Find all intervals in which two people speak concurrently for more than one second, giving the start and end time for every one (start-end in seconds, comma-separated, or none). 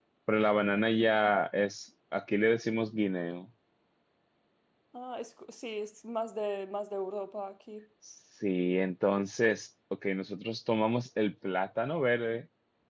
none